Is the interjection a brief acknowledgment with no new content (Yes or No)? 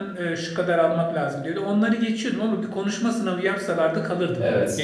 No